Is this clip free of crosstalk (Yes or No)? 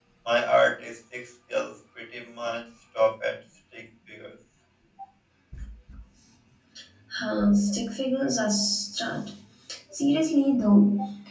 Yes